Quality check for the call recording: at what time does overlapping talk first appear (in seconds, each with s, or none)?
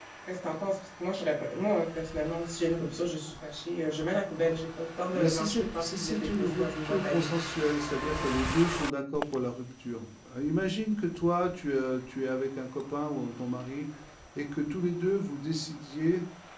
5.1 s